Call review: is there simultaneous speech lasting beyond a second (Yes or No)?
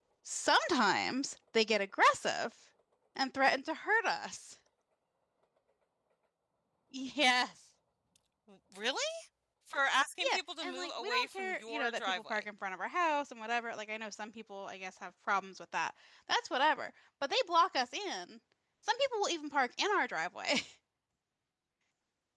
Yes